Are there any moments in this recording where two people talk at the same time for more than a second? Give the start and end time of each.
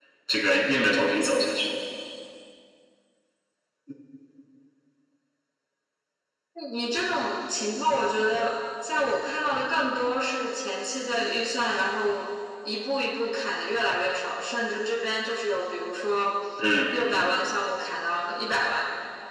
none

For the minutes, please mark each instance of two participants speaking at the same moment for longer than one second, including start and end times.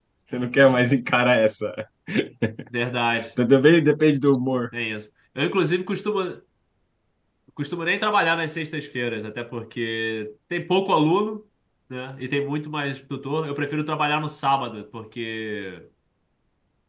none

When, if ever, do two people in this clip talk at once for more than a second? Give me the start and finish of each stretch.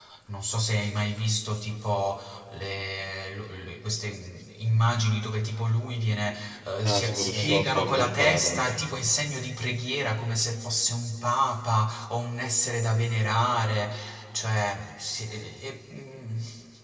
6.9-8.7

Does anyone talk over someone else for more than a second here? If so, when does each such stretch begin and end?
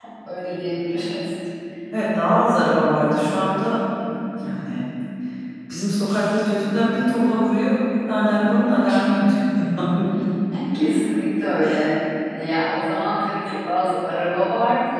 none

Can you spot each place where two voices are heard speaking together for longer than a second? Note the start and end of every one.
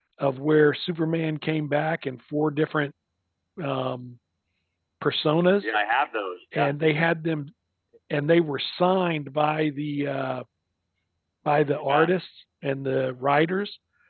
none

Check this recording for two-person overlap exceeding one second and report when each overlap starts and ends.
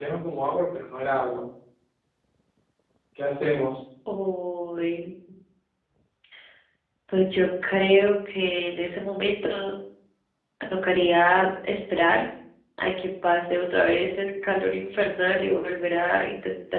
none

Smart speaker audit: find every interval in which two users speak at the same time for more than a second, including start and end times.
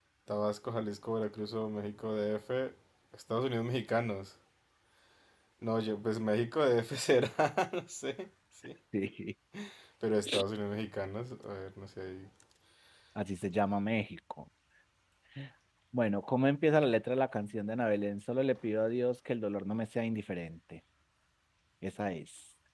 none

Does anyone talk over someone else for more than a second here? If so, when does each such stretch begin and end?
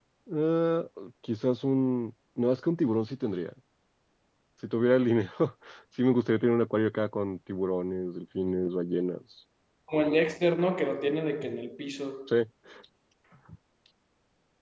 none

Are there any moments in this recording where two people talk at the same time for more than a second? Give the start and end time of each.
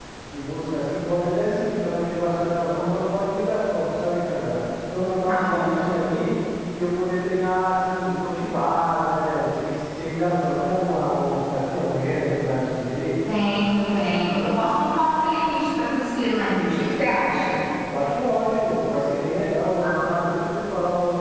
none

